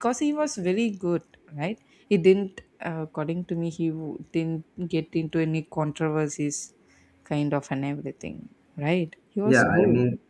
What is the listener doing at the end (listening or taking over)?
taking over